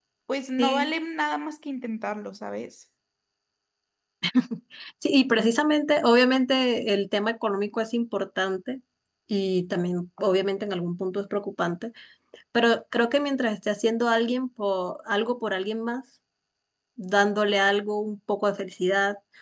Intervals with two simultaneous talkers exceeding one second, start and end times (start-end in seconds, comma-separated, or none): none